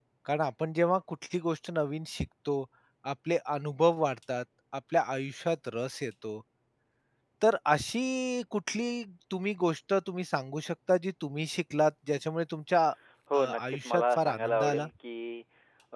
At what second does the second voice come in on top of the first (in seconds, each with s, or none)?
13.3 s